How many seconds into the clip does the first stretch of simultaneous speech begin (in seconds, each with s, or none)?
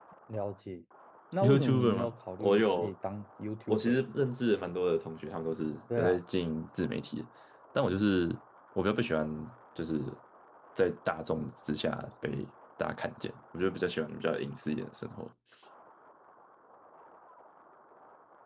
1.4 s